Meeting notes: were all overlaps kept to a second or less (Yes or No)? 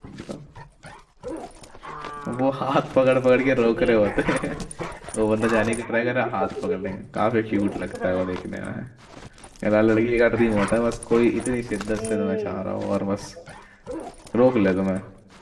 No